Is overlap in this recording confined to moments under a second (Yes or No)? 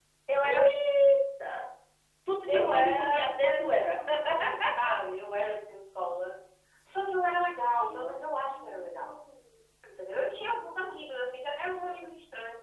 No